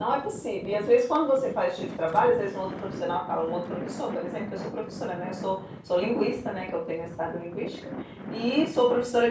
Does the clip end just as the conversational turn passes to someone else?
No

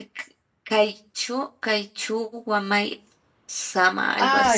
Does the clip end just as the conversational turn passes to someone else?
Yes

